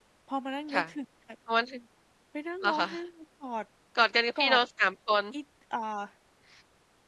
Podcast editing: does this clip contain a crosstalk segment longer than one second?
No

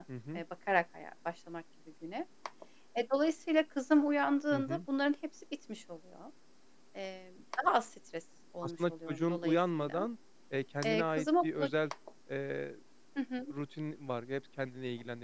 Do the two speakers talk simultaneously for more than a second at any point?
Yes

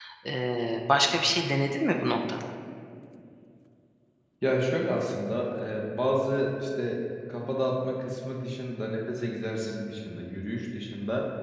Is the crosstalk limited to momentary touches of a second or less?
Yes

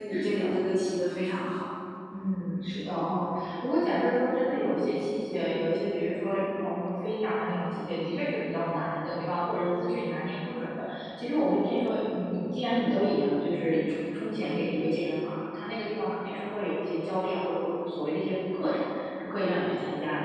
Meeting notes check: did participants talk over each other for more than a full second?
No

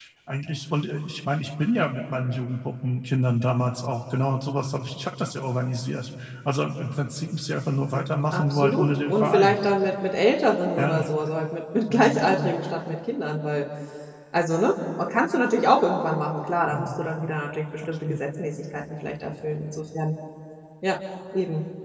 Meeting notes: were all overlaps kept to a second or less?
No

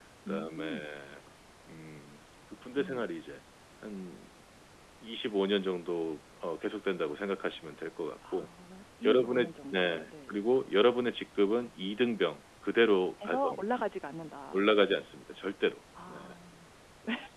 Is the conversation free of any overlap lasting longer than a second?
No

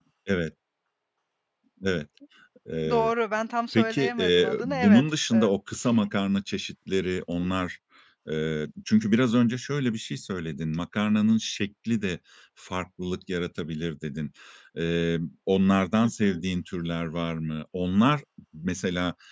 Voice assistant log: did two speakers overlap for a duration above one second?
Yes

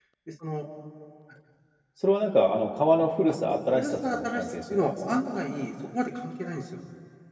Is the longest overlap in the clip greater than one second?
Yes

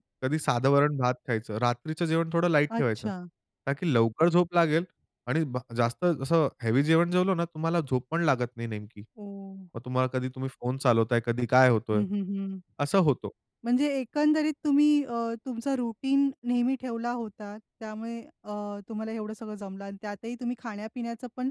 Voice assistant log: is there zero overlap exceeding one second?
Yes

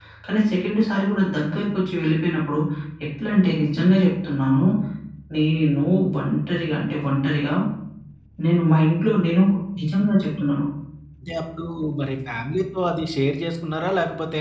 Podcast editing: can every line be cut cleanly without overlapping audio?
Yes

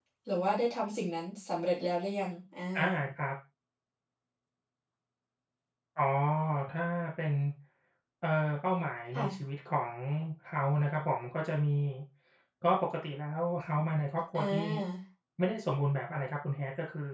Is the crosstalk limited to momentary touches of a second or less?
Yes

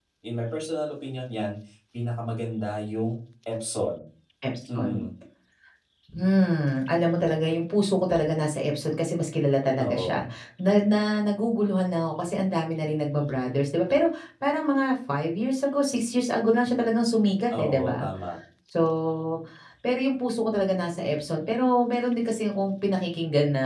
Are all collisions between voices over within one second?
Yes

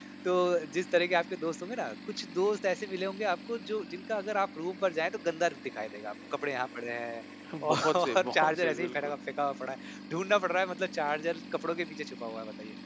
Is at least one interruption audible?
Yes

